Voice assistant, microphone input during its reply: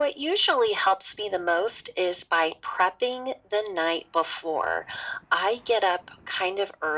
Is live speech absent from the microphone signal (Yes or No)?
Yes